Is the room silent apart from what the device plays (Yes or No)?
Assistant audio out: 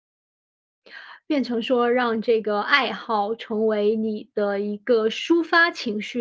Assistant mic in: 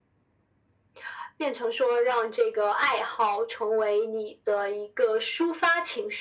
Yes